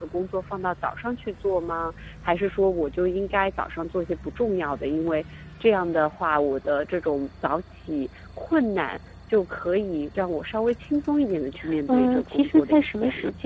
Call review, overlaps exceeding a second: present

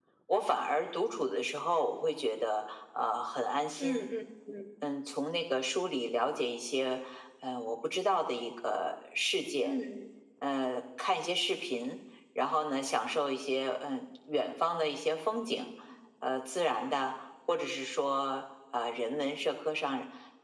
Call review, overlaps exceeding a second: none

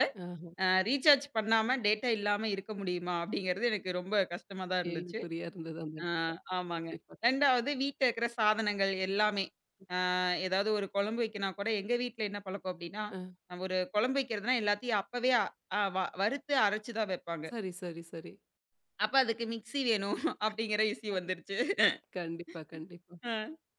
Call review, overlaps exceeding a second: none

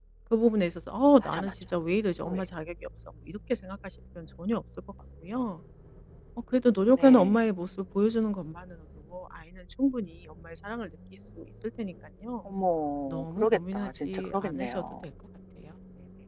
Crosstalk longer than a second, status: present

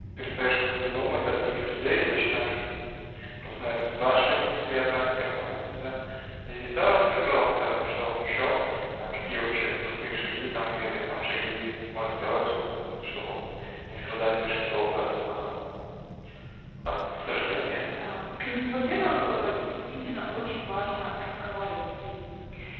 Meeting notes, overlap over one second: none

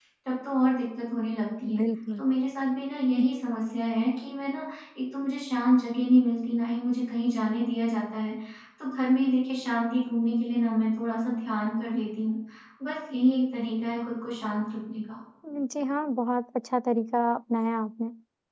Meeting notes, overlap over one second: none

